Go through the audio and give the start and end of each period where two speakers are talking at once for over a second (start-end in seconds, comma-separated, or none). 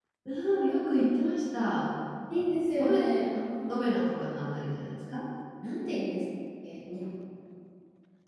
none